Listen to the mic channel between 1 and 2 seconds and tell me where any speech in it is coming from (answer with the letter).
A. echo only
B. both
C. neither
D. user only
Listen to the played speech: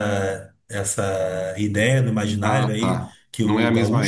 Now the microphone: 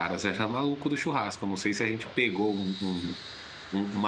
D